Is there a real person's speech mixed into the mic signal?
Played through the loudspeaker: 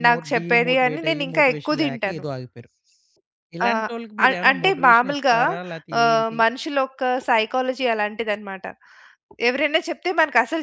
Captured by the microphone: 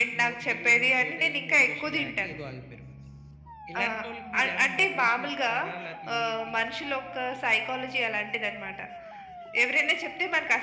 No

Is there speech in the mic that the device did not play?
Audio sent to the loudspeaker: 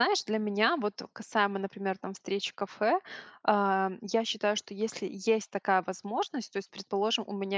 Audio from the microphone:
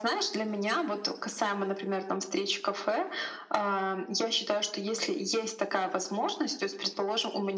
No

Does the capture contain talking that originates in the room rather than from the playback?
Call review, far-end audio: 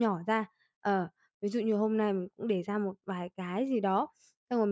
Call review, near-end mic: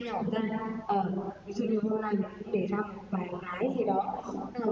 No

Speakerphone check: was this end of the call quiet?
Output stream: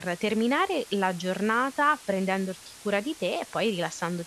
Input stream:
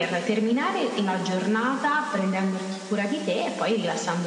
Yes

